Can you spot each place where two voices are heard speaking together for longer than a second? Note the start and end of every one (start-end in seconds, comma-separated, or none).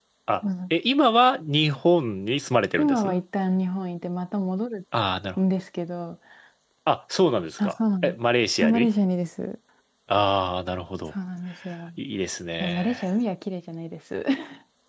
none